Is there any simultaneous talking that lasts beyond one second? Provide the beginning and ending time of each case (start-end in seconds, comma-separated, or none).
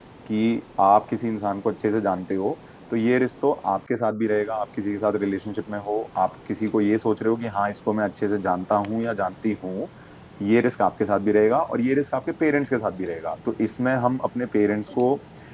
none